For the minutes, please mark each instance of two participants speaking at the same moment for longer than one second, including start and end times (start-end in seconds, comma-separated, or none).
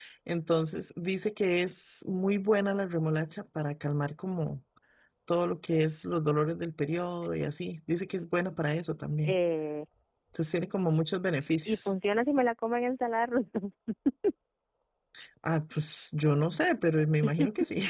none